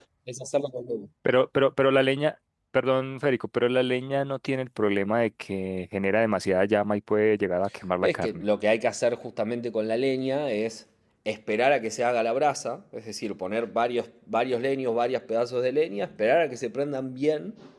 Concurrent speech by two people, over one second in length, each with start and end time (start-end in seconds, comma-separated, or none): none